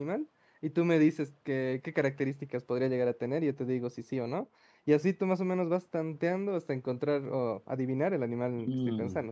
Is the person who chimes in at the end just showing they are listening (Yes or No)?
No